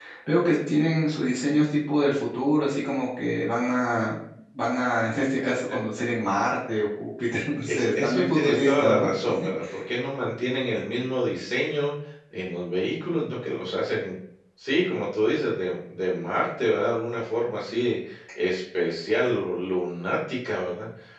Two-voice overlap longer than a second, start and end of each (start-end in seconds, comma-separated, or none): 7.7-9.1